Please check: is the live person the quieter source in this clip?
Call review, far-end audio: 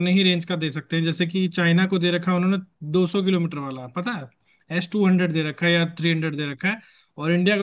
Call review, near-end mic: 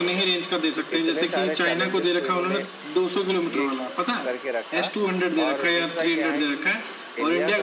Yes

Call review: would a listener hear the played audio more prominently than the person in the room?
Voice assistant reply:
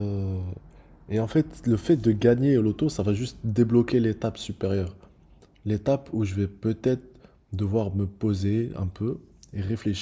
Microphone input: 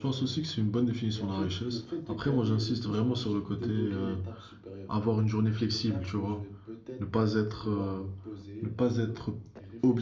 No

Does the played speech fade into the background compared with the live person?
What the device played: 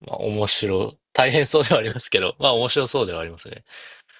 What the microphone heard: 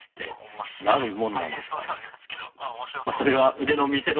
Yes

